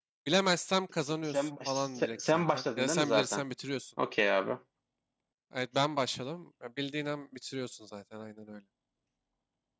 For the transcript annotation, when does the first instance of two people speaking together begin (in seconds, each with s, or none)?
1.1 s